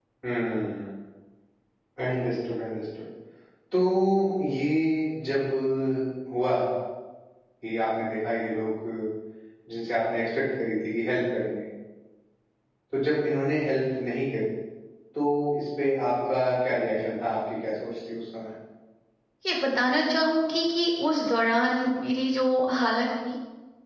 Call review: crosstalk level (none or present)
none